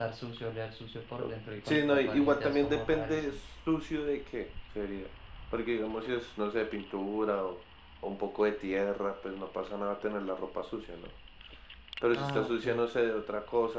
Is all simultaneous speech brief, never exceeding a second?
No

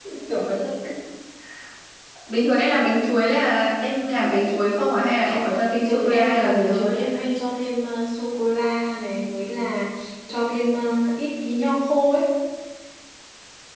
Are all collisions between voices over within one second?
No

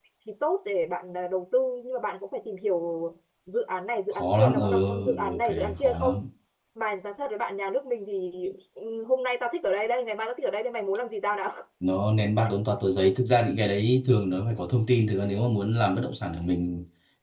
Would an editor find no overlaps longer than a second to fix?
No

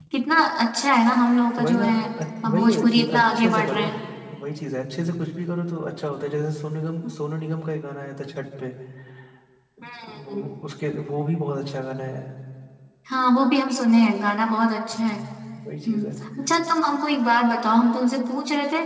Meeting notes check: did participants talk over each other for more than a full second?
Yes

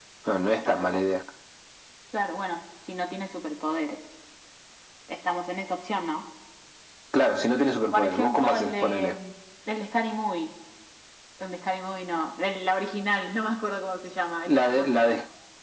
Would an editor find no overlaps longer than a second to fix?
No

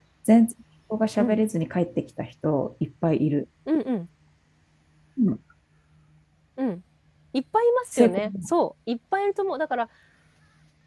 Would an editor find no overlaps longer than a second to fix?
Yes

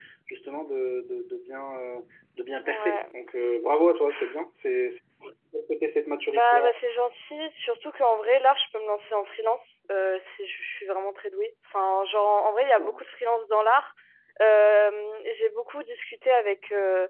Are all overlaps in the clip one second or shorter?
Yes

